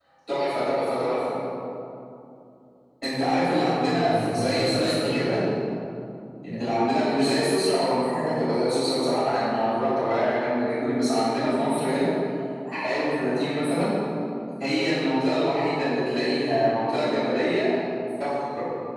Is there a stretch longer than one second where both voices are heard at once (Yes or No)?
Yes